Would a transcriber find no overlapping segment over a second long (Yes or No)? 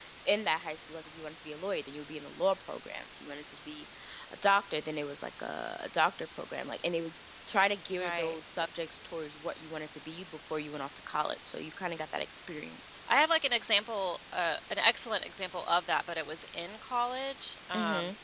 Yes